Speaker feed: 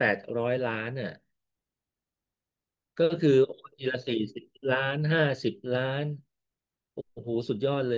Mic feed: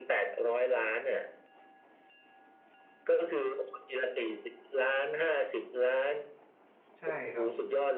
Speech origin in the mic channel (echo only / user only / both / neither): both